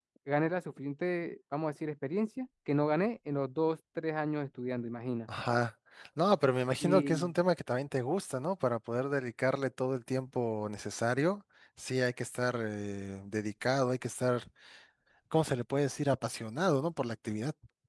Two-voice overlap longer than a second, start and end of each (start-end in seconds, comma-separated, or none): none